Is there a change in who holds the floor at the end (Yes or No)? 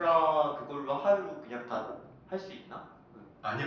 Yes